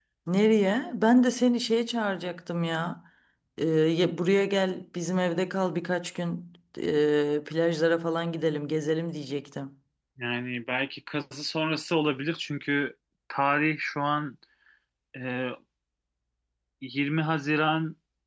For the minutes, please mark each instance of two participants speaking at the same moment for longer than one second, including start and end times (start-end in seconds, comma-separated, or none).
none